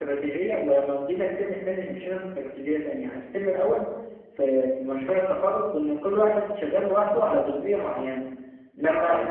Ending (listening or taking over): listening